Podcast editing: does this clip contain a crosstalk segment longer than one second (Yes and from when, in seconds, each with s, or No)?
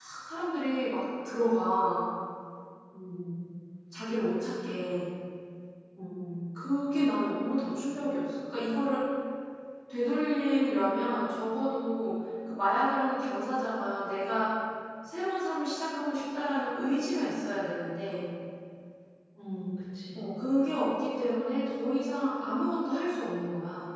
No